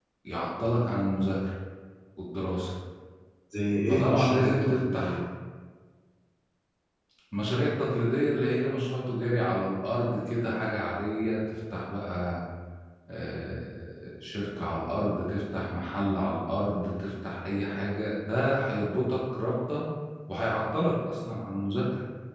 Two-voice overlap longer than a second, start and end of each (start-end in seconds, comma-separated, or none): 3.9-5.2